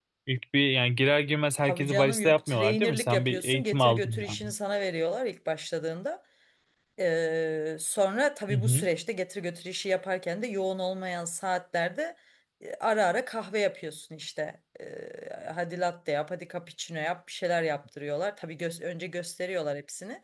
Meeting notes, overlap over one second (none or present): present